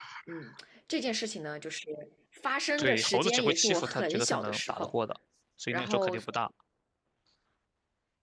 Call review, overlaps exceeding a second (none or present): present